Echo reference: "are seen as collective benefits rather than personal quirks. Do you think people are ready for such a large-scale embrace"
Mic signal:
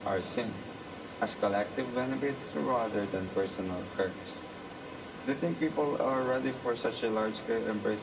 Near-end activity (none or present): none